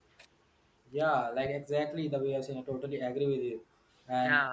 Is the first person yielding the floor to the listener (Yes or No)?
No